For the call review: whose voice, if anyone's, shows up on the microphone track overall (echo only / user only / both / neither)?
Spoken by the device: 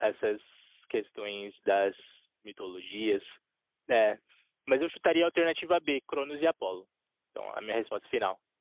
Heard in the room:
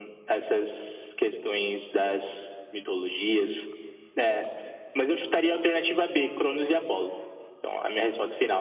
echo only